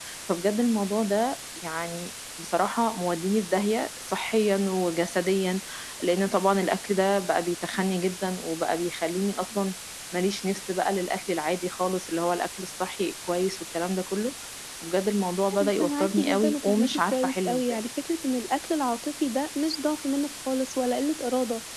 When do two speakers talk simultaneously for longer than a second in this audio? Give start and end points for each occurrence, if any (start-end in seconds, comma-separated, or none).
15.6-17.8